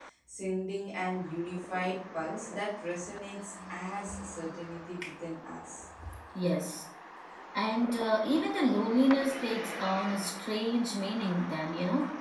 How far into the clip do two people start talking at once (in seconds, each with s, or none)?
none